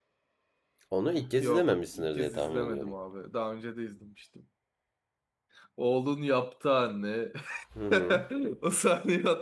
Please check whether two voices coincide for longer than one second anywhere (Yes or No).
Yes